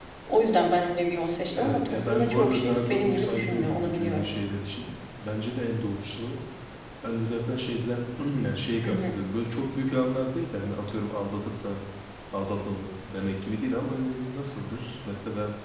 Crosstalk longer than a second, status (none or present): present